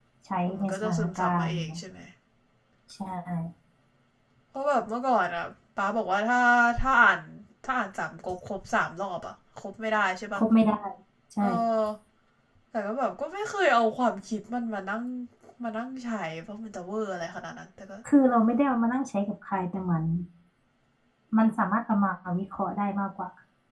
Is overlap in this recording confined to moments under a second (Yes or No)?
No